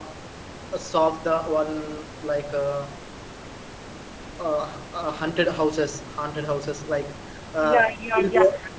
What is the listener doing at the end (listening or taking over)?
taking over